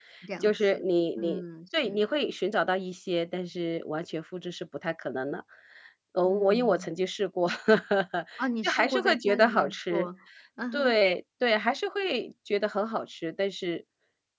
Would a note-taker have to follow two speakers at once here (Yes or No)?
Yes